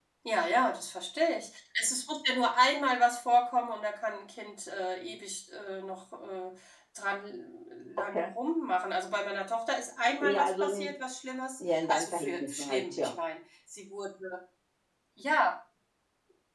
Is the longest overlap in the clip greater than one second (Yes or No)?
Yes